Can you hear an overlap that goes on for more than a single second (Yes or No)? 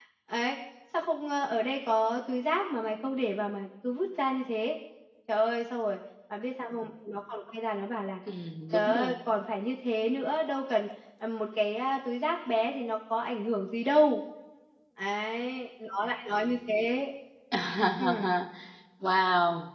No